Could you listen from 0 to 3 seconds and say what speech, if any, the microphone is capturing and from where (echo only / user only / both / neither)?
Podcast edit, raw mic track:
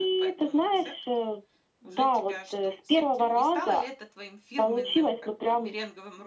both